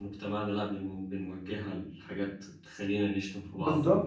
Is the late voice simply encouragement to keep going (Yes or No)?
No